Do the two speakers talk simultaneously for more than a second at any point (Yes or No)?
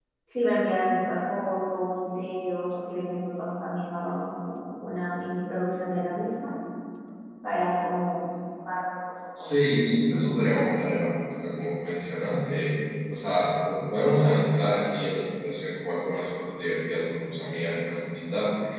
No